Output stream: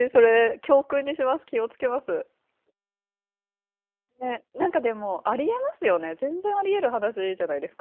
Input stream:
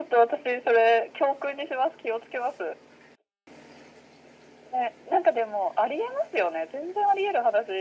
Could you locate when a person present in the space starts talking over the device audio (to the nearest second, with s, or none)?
none